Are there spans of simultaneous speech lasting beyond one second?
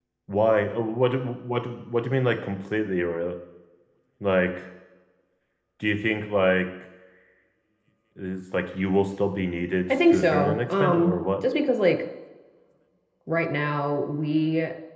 Yes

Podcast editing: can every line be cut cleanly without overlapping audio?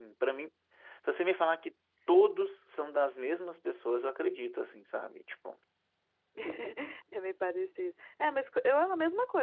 Yes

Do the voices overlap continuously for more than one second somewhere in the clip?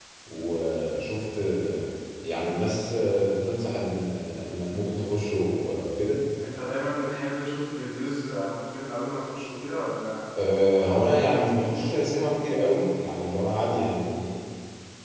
No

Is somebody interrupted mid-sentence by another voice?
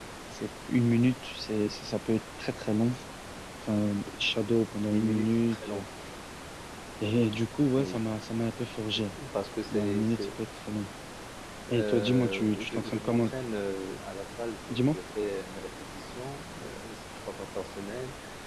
Yes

